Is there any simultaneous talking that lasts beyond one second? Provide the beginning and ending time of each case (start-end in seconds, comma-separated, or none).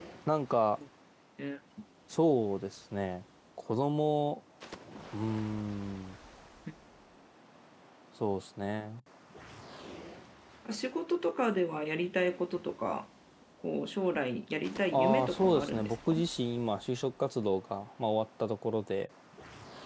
14.9-16.2